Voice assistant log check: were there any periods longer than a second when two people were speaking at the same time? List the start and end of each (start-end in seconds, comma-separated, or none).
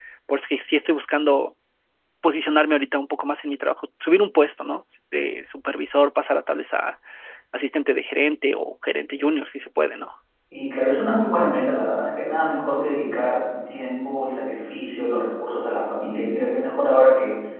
none